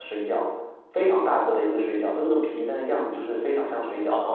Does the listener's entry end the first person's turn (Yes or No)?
Yes